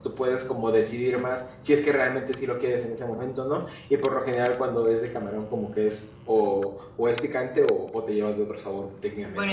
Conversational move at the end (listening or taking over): taking over